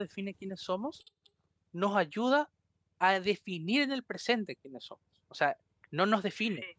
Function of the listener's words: listening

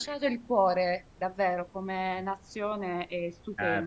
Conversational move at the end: taking over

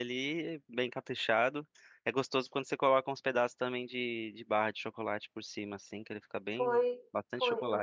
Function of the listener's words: taking over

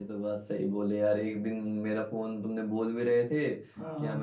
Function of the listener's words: listening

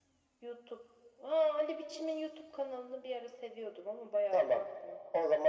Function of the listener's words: taking over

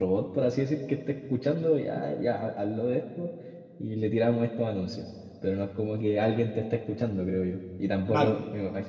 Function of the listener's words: listening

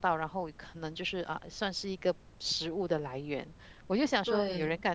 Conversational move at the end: listening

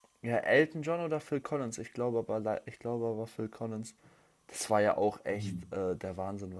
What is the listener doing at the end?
listening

